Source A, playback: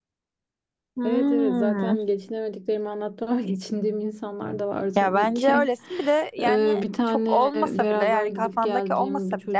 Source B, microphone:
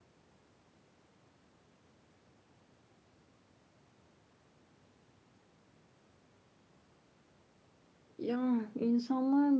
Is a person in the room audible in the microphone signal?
Yes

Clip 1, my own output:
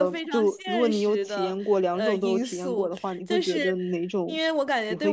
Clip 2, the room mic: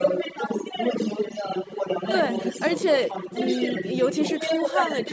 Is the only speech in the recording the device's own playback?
No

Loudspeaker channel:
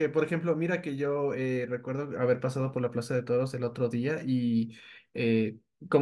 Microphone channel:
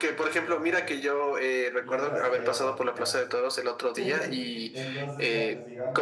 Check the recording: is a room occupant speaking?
Yes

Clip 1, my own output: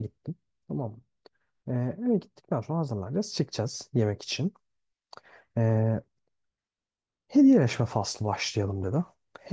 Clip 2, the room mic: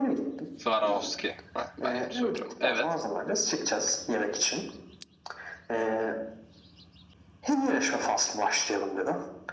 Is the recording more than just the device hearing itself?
Yes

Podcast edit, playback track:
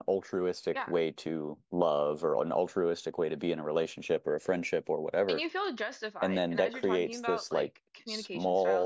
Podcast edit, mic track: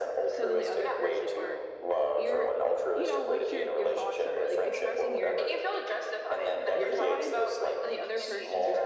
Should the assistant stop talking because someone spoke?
Yes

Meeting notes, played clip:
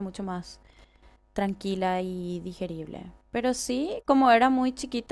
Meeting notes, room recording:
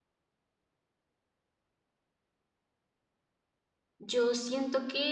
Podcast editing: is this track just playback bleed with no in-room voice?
No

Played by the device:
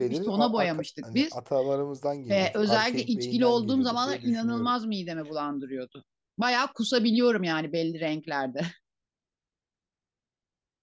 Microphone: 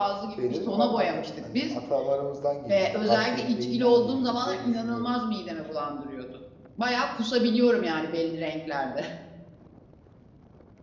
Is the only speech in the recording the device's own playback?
Yes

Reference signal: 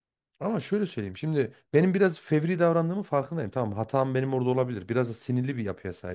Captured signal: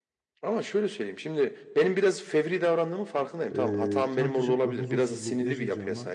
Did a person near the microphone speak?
Yes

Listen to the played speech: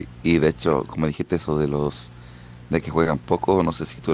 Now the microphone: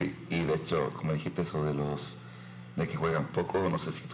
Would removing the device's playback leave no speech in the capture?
Yes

